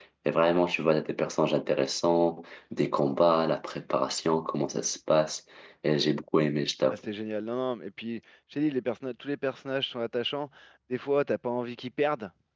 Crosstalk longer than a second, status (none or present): none